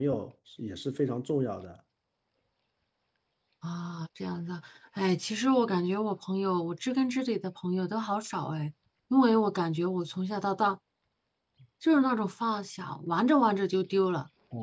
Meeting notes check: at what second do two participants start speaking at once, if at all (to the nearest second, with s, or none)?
none